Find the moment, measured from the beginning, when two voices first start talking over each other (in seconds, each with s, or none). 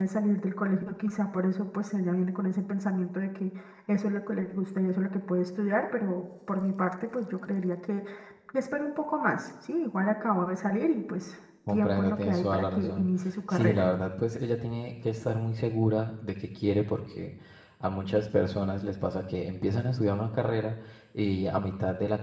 11.7 s